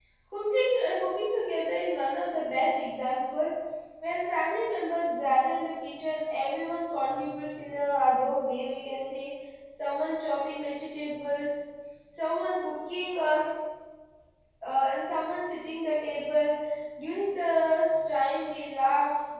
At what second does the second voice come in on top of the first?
none

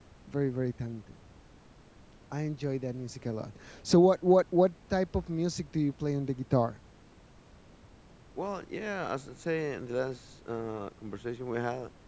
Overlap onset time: none

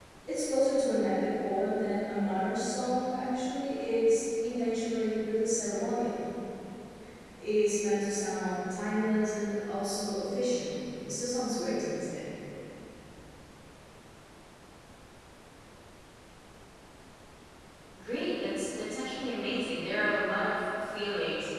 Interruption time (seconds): none

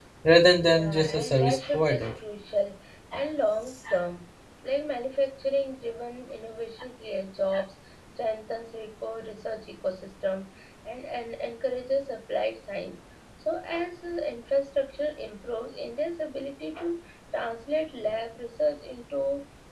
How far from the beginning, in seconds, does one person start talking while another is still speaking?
0.6 s

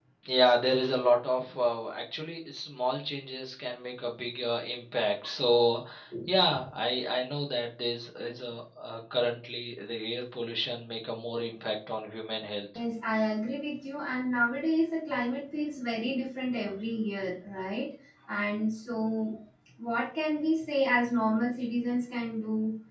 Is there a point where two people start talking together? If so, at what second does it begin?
none

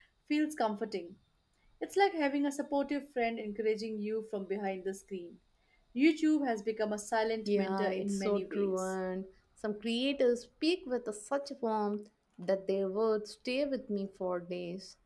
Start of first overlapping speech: 7.5 s

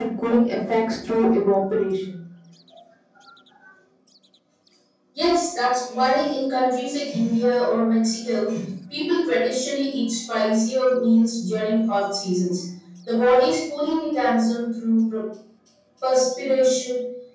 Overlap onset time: none

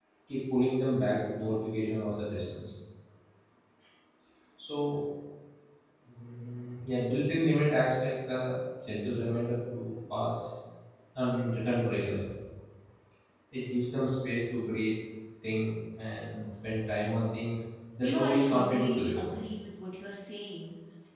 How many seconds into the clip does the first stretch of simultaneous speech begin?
18.0 s

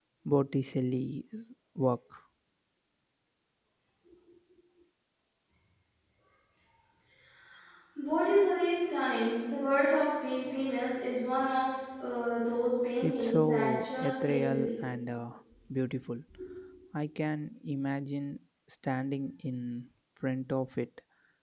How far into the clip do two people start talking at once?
13.0 s

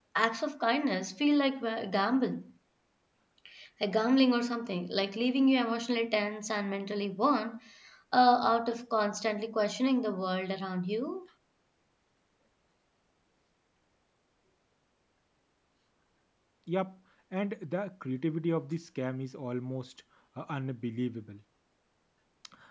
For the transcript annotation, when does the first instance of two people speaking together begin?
none

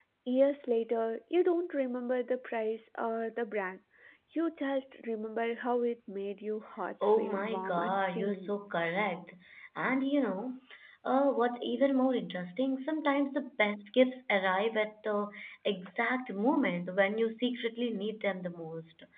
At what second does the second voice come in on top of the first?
7.0 s

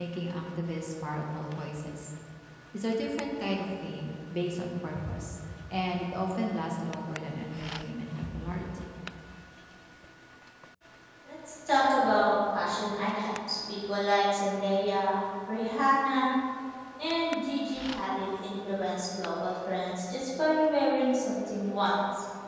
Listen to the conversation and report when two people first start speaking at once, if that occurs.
none

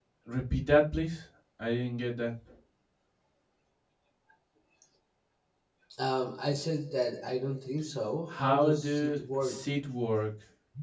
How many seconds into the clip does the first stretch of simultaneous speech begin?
8.3 s

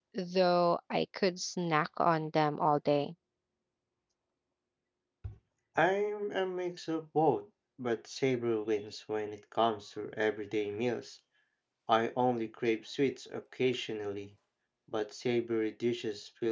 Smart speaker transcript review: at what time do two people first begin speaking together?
none

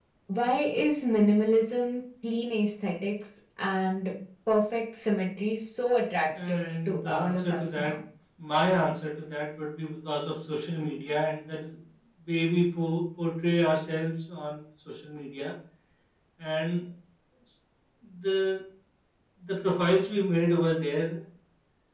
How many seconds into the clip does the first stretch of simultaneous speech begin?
6.3 s

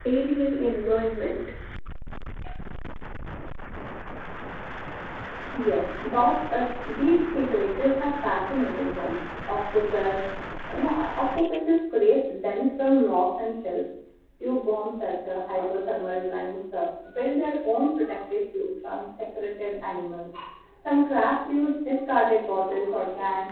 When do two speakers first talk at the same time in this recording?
none

